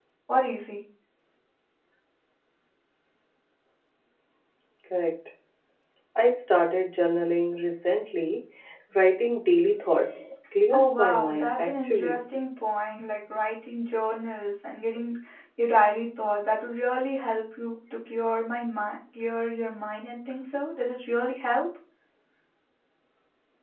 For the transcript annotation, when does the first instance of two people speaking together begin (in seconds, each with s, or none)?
10.7 s